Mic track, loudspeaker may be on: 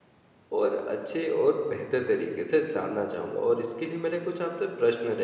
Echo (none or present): none